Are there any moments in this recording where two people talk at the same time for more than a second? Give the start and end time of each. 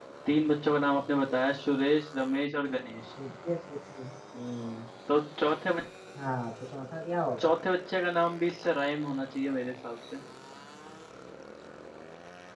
none

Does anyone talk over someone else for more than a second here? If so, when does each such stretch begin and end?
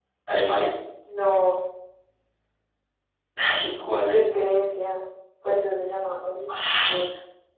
none

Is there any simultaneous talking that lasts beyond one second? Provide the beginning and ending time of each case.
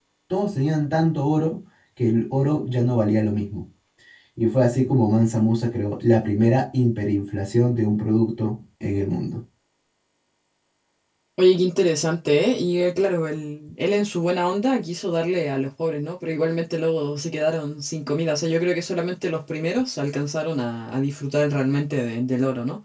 none

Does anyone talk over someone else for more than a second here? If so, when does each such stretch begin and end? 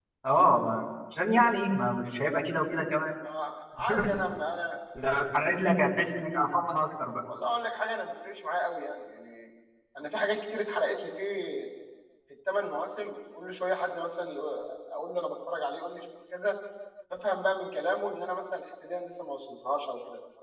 none

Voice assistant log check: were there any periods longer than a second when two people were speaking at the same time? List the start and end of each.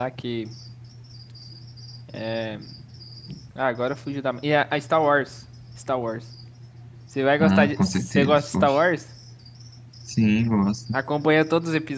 7.4-8.8

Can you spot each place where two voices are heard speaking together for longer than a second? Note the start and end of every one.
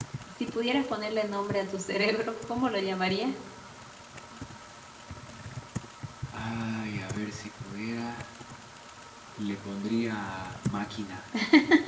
none

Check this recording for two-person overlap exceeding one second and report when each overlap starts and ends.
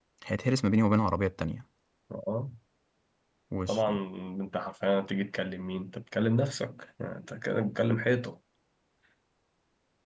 none

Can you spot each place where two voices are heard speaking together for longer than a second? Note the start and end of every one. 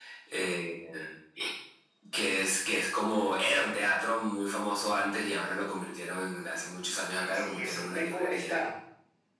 7.2-8.6

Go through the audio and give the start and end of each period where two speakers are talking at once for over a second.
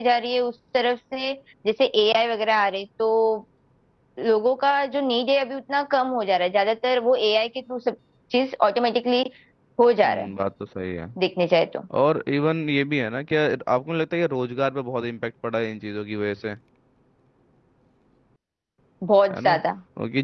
none

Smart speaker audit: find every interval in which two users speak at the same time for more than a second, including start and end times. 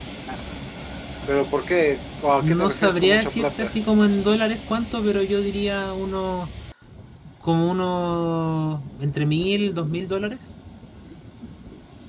2.4-3.7

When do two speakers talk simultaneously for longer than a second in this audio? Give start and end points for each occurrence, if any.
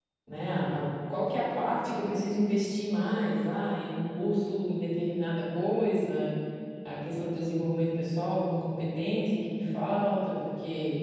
none

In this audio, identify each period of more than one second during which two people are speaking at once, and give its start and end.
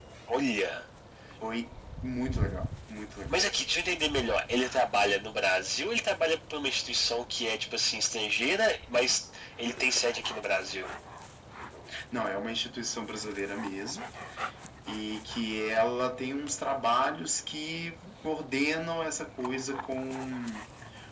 none

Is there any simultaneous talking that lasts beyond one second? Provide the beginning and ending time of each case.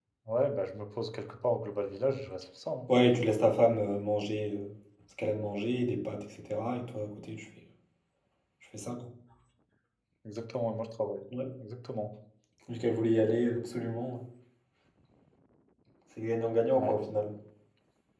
none

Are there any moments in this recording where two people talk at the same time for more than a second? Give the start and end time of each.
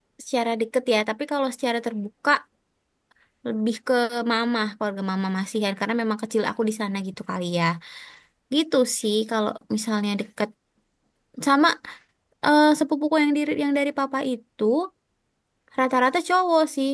none

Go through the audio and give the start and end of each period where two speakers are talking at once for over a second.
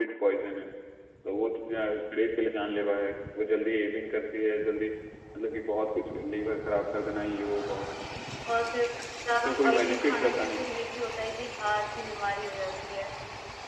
9.3-10.6

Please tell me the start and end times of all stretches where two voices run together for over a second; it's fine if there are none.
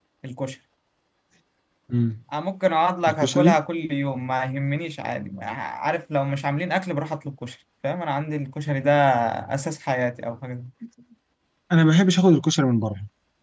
none

